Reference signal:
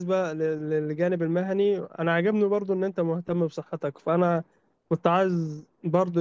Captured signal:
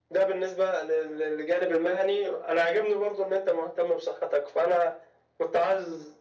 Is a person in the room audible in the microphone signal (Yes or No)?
No